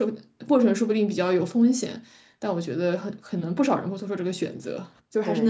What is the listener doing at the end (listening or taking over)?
taking over